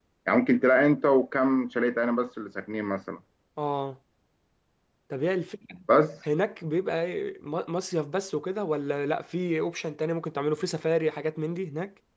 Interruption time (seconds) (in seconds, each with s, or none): none